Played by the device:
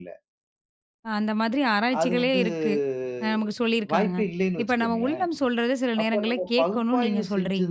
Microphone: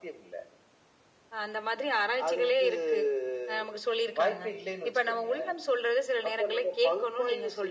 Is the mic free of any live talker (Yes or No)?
Yes